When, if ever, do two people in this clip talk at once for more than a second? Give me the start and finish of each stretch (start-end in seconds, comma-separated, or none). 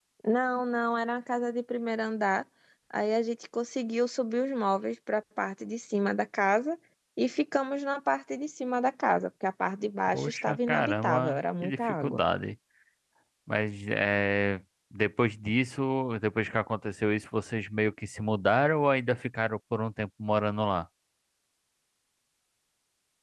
10.1-12.2